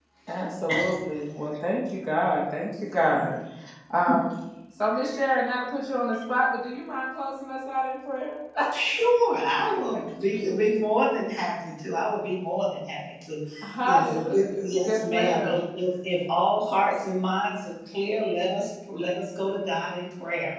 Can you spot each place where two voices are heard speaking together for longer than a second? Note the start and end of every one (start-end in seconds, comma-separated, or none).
13.8-15.6